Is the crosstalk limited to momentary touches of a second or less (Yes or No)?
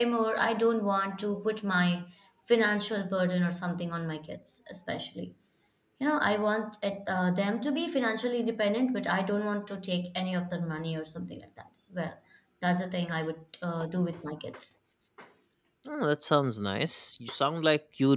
Yes